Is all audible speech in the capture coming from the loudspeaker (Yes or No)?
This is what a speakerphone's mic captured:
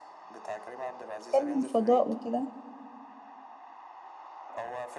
No